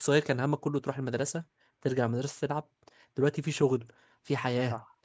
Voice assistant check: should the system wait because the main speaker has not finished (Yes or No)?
Yes